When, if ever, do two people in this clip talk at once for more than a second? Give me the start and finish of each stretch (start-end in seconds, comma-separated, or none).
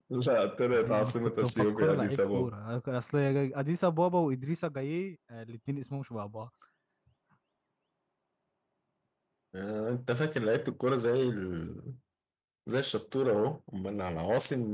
0.7-2.5